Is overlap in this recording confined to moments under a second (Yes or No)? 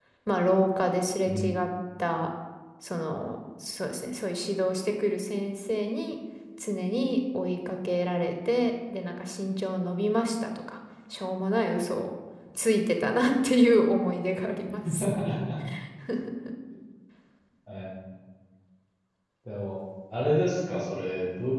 Yes